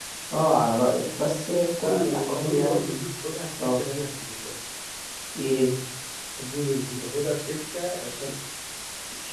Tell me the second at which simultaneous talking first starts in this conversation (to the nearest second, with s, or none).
2 s